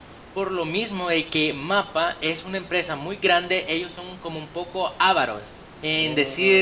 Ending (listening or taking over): listening